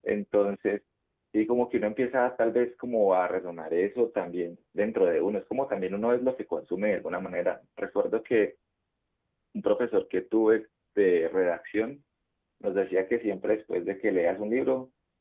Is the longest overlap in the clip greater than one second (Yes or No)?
No